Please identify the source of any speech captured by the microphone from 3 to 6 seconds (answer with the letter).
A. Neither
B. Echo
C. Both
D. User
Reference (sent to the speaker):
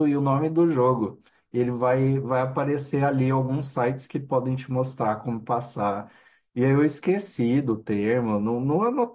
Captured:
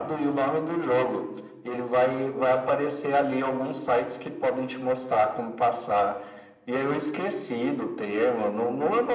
B